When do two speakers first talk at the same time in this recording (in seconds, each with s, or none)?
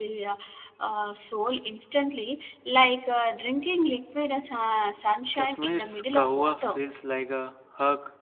5.3 s